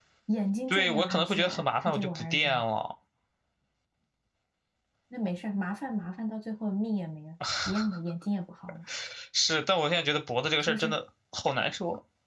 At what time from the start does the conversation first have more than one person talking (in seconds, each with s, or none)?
0.7 s